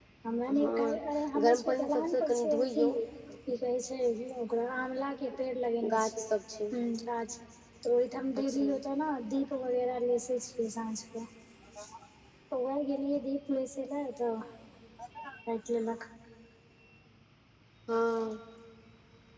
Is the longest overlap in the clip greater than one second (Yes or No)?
Yes